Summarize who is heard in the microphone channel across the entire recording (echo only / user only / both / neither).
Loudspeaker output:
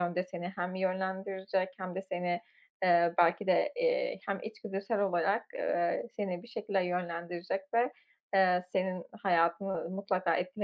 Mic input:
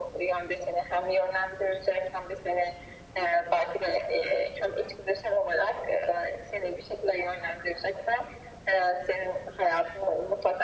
echo only